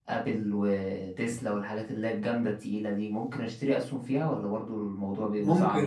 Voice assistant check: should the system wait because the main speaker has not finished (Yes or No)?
No